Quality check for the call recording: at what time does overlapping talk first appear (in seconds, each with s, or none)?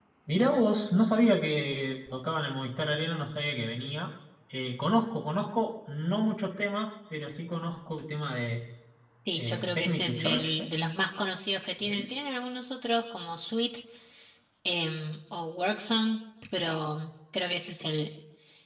9.3 s